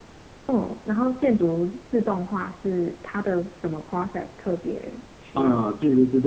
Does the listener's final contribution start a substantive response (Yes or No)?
Yes